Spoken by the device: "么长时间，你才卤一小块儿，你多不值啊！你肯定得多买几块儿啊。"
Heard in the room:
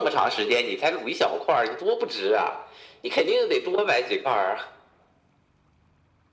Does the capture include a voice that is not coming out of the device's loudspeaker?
No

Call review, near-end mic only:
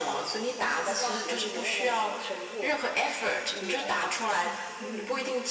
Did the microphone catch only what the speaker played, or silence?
Yes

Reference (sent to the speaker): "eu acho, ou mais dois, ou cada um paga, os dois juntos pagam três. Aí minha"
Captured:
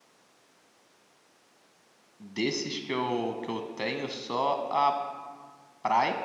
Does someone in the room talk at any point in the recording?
Yes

